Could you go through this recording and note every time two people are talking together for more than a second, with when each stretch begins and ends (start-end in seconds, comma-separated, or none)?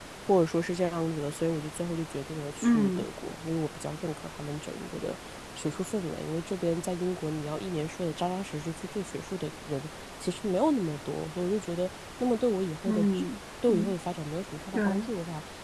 none